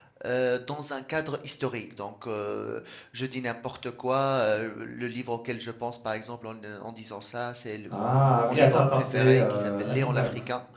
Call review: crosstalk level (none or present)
present